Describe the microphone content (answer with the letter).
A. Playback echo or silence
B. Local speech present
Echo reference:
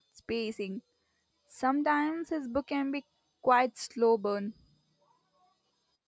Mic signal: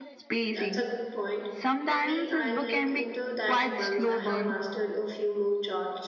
B